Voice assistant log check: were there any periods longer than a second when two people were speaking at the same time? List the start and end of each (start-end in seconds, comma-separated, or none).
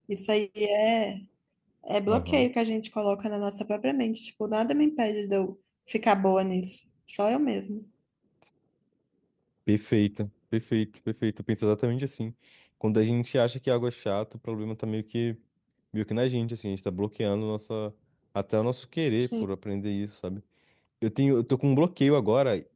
none